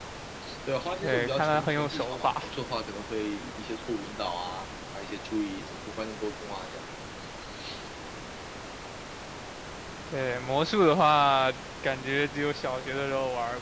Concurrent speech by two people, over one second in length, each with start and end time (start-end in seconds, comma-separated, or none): 1.0-2.3